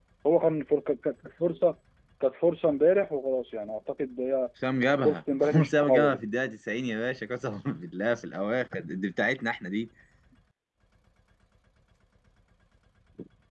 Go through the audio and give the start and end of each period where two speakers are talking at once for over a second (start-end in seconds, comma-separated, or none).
5.0-6.2